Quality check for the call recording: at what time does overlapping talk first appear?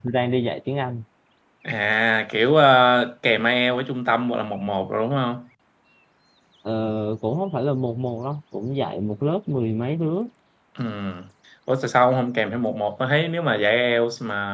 none

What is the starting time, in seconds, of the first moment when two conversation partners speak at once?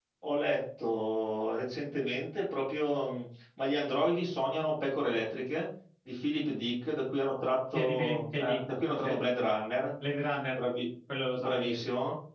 7.7 s

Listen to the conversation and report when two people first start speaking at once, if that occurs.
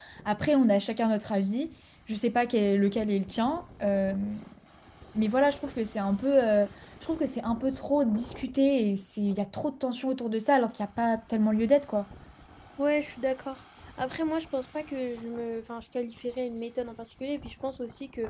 none

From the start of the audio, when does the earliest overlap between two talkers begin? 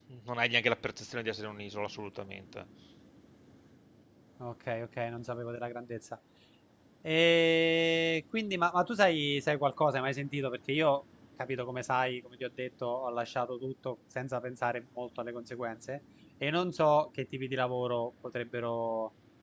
none

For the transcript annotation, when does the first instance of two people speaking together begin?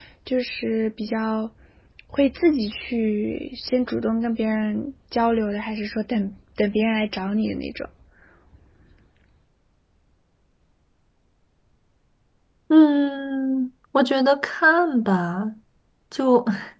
none

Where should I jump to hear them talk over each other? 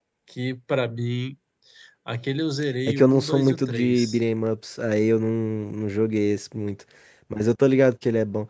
2.9 s

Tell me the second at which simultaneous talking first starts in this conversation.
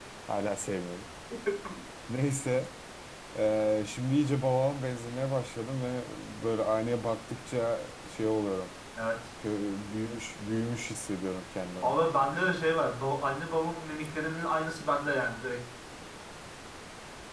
none

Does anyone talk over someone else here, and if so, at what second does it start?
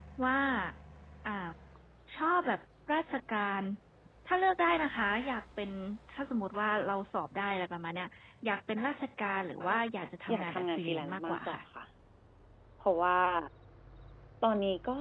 10.3 s

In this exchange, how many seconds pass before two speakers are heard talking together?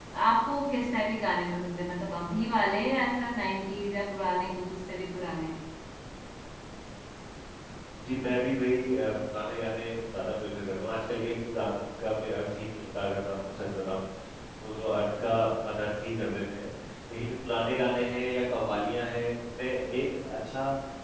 none

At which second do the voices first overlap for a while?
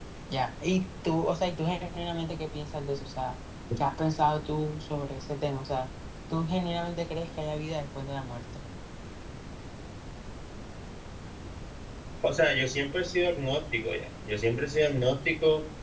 none

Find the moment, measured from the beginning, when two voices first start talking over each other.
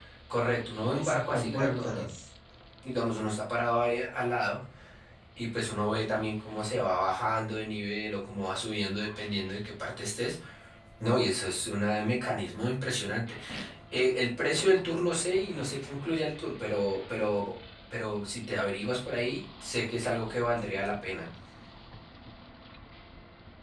0.5 s

